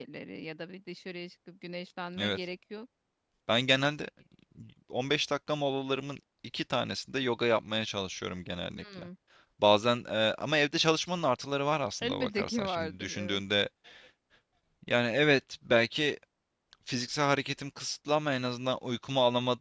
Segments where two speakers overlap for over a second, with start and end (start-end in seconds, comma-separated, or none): 12.0-13.4